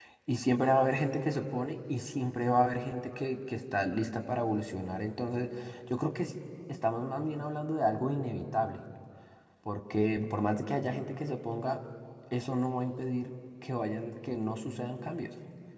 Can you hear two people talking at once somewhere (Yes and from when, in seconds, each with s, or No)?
No